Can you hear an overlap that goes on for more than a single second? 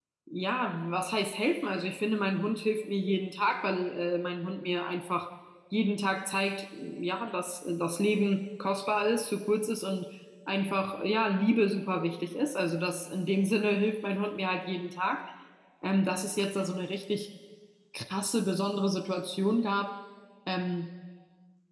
No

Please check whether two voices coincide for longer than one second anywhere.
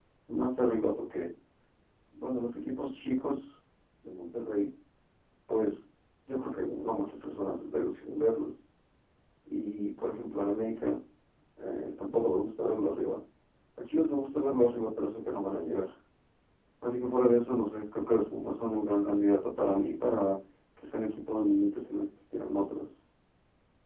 No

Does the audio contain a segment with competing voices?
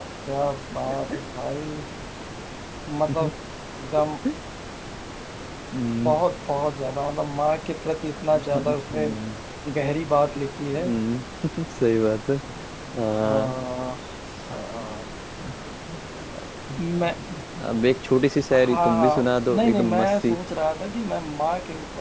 Yes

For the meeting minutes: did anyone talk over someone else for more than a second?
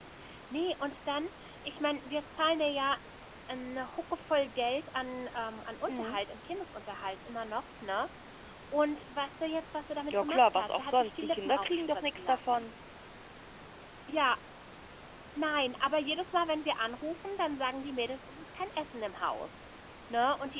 Yes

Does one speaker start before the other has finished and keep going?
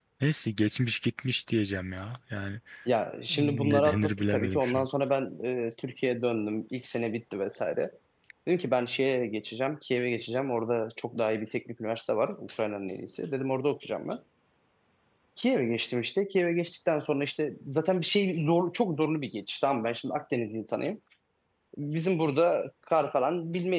Yes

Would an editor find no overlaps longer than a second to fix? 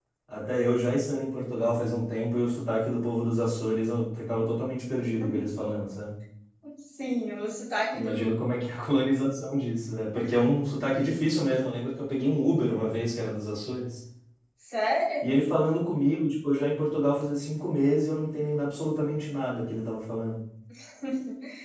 Yes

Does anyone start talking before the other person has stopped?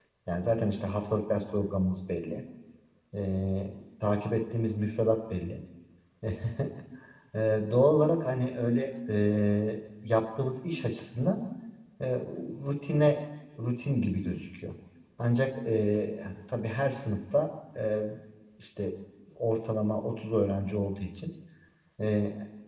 No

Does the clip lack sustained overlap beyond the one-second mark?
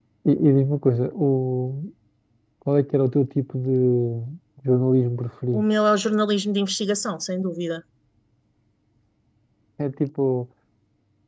Yes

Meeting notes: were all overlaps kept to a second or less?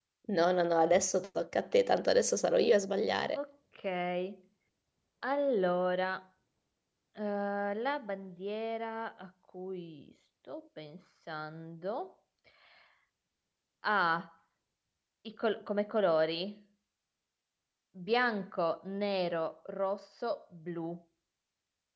Yes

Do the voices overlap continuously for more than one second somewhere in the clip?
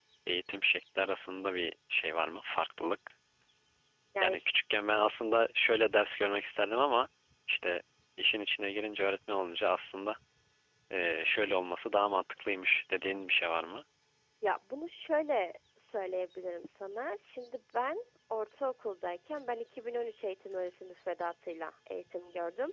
No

